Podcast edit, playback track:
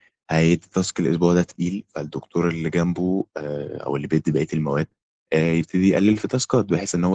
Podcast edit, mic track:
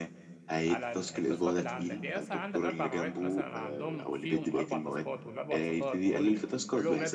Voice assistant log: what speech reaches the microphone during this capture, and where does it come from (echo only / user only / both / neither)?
both